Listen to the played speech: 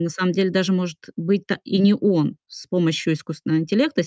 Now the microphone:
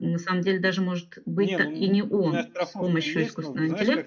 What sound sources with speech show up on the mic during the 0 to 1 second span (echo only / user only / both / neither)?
echo only